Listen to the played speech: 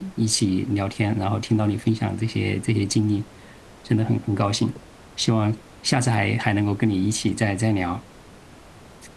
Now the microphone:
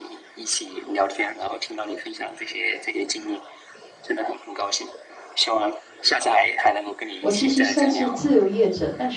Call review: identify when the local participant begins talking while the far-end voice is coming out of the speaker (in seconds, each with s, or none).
7.2 s